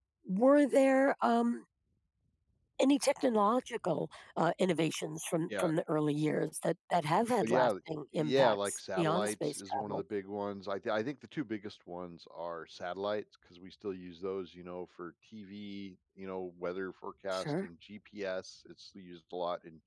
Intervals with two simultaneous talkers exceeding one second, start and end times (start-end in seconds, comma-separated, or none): 8.1-10.0